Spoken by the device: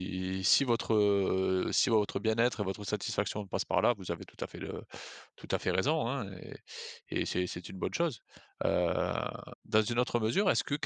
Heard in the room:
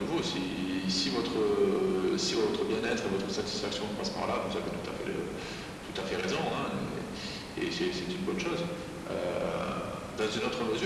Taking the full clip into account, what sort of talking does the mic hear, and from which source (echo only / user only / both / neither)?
echo only